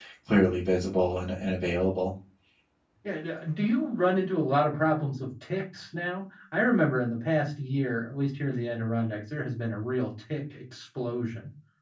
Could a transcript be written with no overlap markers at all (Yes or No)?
Yes